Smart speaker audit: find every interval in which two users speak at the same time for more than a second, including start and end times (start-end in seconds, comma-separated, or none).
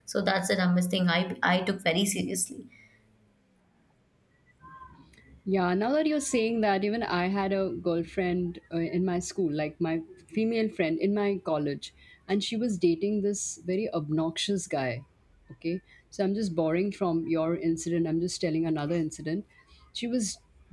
none